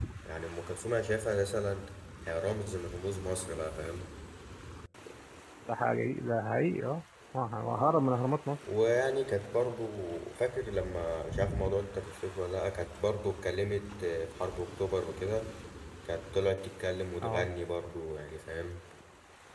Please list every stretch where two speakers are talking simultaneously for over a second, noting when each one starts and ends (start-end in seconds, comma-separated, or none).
none